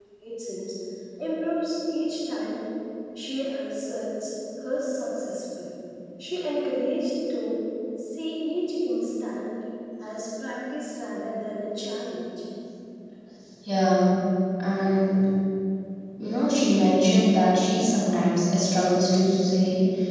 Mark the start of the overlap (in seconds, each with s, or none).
none